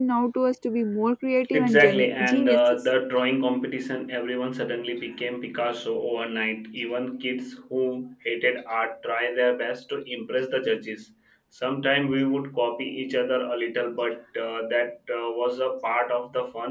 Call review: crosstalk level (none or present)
present